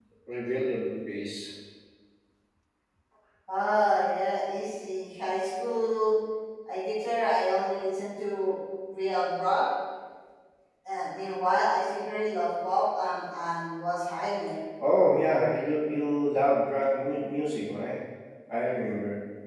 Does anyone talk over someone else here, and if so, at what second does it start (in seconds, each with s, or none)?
none